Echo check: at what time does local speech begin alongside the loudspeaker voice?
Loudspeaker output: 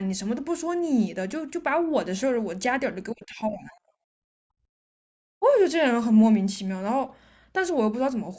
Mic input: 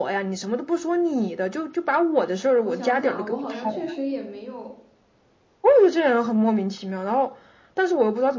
2.6 s

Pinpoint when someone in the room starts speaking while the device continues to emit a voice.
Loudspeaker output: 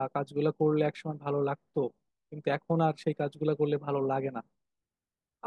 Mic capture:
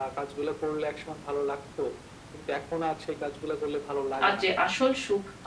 4.2 s

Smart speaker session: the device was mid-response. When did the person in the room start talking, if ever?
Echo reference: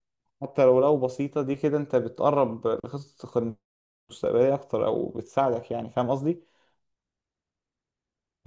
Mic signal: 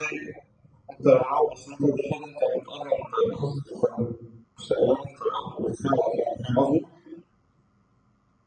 none

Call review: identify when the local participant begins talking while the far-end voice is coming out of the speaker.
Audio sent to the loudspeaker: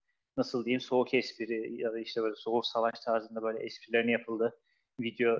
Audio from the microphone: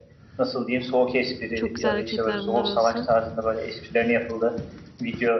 1.5 s

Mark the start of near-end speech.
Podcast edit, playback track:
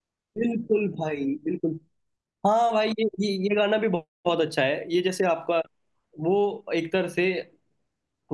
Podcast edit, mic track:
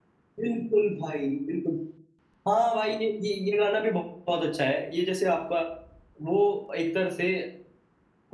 none

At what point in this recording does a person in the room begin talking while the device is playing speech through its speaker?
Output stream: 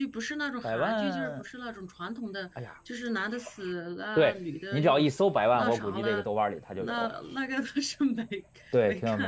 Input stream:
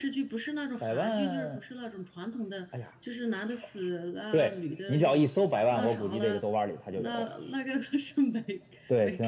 none

